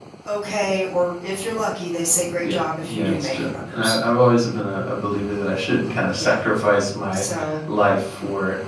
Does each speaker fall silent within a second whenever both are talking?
No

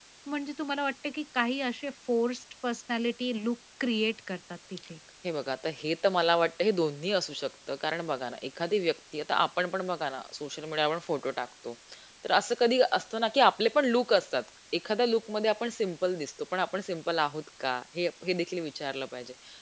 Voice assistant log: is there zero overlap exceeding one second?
Yes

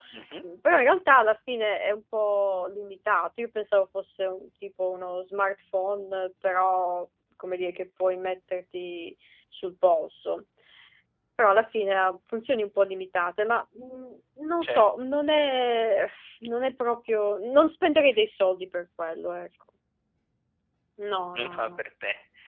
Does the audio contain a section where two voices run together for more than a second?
No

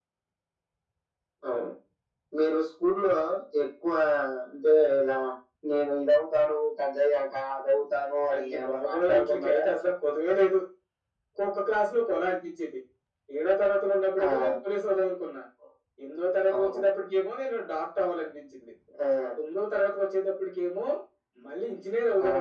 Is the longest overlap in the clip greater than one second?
Yes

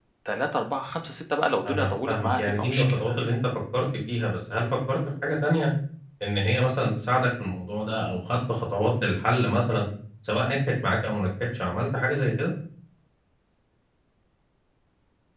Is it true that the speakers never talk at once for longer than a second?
No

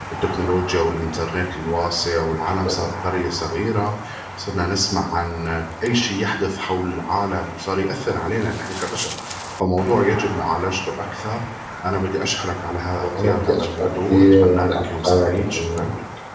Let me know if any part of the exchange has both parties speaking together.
Yes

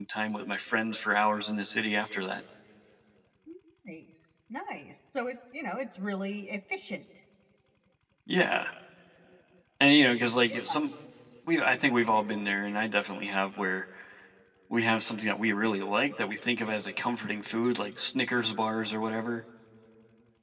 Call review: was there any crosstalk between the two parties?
No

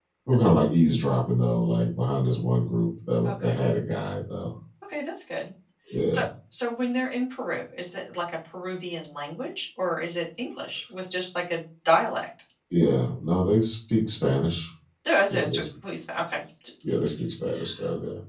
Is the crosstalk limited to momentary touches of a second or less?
Yes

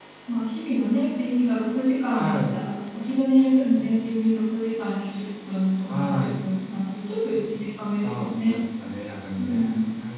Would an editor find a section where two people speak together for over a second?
No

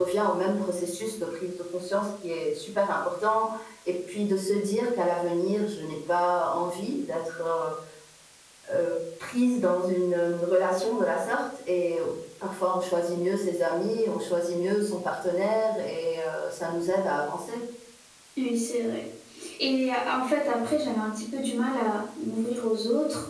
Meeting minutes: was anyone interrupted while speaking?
No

